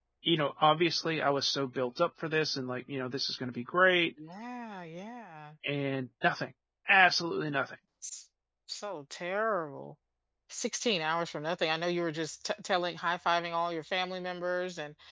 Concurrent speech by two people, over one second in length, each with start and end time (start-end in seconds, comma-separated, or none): none